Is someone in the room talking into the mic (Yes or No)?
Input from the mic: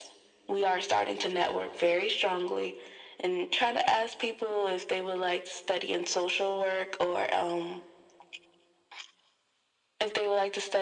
No